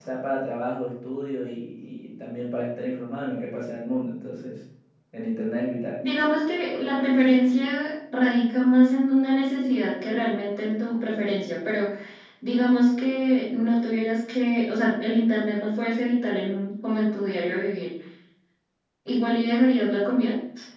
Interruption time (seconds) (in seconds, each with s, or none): none